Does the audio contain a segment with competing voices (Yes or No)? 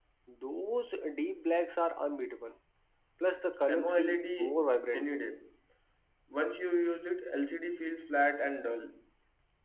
Yes